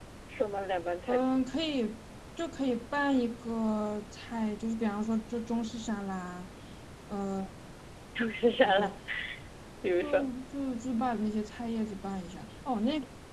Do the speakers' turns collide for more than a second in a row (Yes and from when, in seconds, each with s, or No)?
No